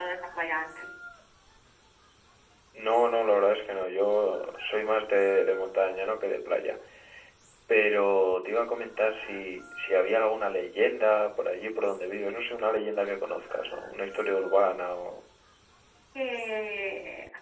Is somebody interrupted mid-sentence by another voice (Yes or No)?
No